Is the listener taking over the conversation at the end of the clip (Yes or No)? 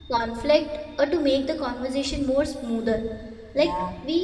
No